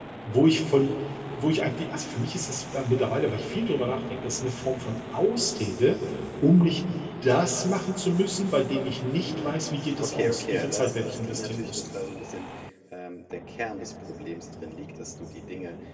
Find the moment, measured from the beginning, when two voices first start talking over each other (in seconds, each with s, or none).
9.2 s